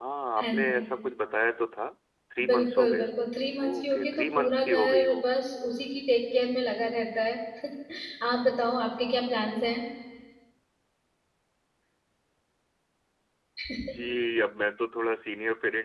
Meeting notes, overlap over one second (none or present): present